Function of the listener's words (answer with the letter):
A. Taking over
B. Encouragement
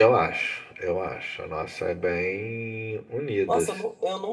A